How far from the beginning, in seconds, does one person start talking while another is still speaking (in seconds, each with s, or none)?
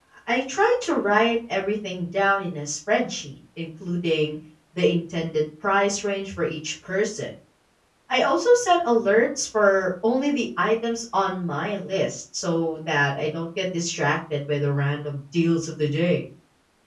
none